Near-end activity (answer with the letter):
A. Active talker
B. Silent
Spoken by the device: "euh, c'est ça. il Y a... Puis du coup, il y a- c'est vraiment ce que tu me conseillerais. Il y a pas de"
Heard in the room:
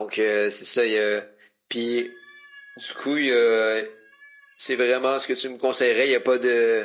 B